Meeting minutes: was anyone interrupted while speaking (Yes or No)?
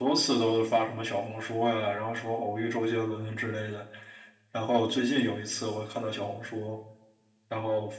No